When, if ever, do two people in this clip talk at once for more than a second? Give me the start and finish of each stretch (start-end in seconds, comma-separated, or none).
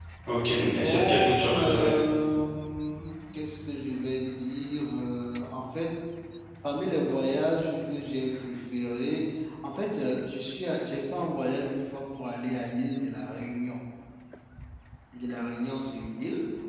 0.6-1.9